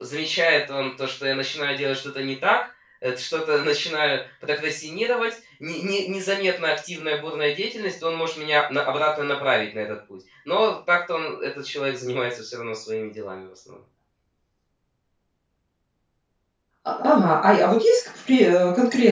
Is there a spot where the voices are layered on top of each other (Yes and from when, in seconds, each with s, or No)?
No